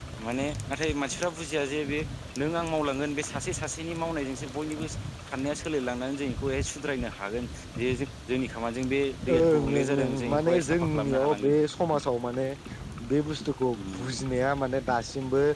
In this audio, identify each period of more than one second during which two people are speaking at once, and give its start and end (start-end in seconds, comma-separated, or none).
9.3-11.5